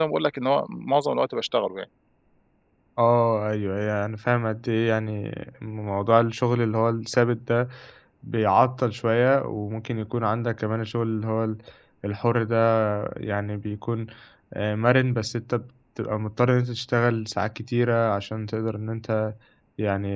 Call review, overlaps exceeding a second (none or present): none